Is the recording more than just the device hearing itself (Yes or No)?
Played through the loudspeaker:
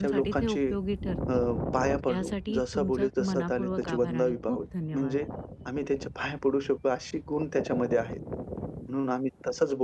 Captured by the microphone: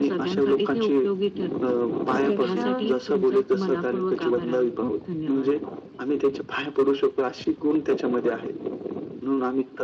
Yes